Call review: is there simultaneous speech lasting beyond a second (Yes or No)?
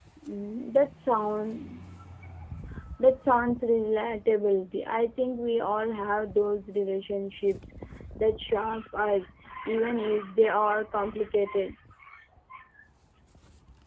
No